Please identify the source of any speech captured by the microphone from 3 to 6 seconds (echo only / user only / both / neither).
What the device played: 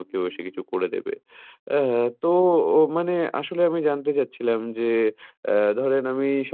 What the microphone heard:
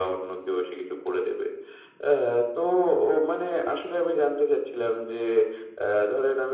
echo only